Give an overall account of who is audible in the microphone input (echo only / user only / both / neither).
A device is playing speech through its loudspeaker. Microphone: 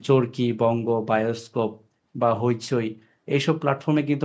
user only